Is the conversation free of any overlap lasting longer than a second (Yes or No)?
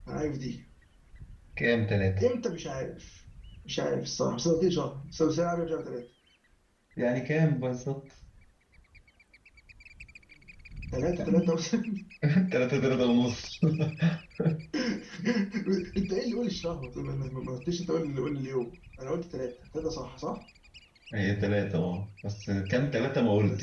Yes